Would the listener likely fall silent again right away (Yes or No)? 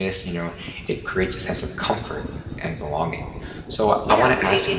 No